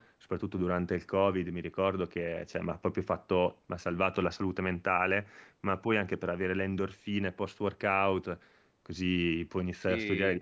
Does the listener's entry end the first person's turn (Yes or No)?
No